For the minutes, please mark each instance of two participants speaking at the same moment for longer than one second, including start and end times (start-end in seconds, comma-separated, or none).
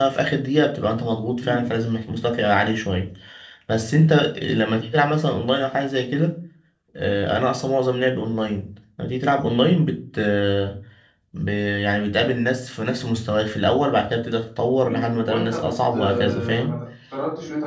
14.8-16.8